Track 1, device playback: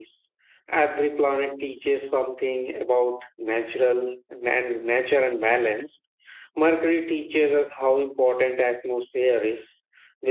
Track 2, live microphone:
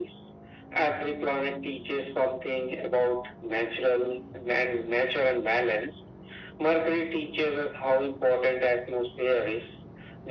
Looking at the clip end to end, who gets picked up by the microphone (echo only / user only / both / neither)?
echo only